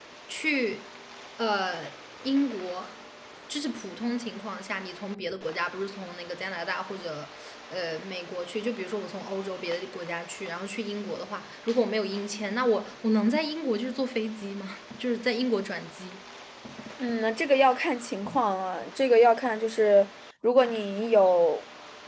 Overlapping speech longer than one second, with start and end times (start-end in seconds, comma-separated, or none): none